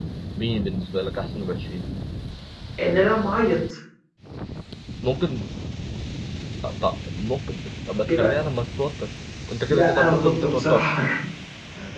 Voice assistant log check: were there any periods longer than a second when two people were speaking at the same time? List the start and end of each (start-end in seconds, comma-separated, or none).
9.7-10.9